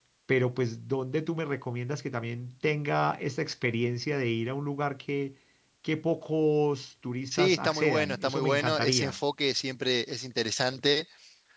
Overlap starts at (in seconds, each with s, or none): 7.3 s